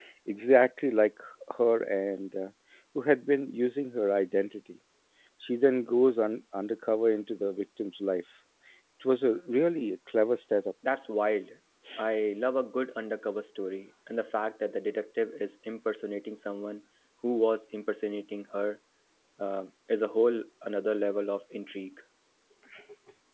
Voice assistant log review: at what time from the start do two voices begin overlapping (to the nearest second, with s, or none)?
none